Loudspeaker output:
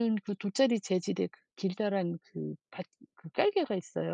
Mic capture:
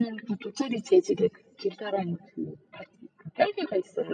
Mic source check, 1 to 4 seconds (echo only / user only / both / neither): echo only